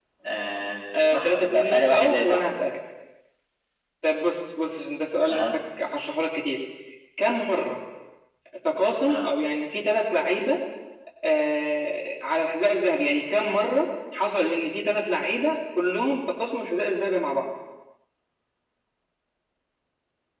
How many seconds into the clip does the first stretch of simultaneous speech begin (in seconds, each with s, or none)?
1.0 s